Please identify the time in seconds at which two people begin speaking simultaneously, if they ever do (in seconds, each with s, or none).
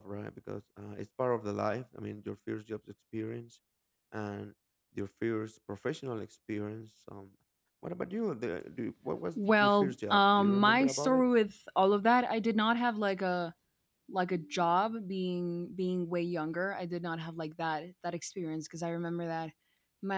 9.4 s